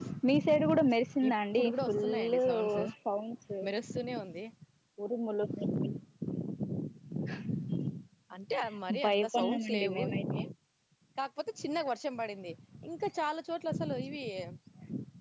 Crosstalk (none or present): present